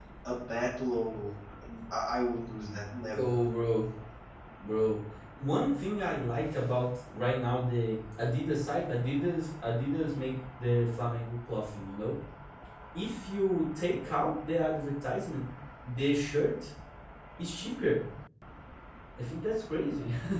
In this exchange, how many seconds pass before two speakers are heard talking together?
none

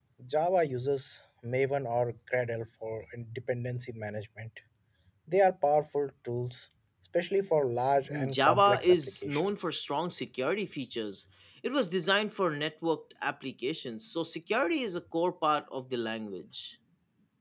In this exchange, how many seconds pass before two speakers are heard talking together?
8 s

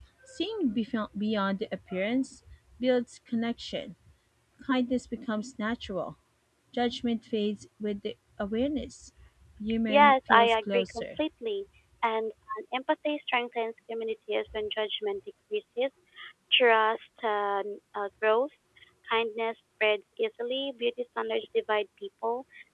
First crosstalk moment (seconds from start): 10 s

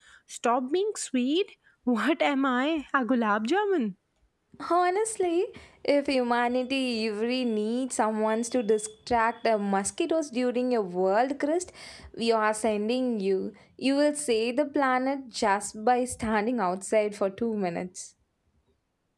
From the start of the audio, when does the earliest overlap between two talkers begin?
none

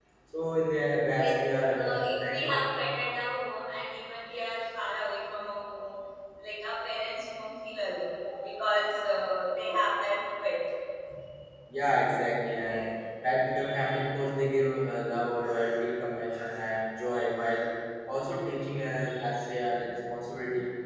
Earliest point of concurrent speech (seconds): 1 s

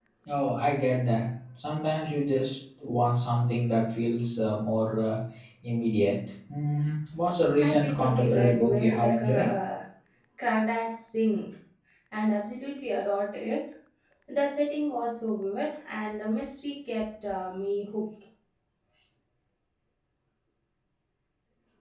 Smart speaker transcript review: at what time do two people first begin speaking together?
8 s

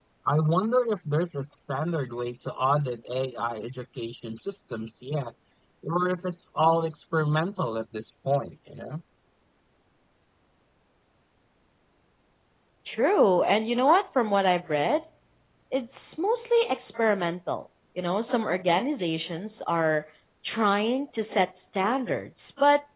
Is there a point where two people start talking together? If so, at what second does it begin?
none

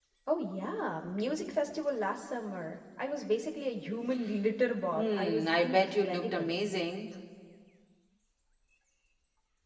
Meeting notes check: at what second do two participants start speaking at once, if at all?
5 s

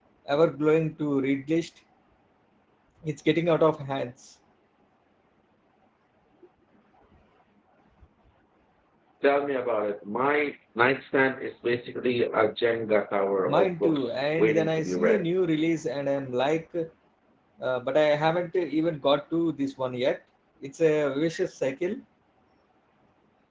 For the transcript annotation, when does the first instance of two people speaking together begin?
13 s

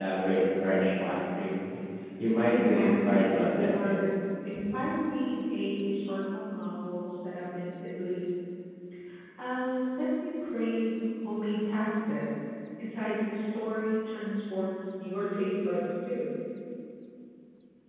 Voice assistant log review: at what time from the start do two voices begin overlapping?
2 s

